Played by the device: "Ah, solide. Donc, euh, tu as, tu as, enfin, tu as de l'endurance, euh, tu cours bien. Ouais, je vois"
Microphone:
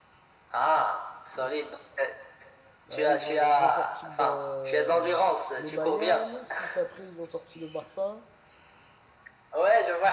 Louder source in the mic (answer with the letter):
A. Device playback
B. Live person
A